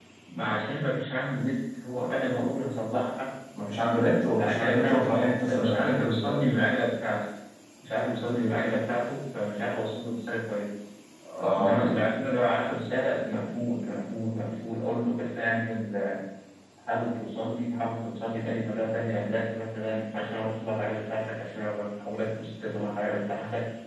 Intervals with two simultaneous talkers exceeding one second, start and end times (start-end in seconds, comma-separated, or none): 4.4-6.5